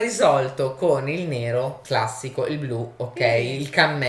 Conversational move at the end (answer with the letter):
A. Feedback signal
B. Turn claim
A